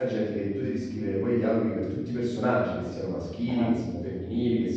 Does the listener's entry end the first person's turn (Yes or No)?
No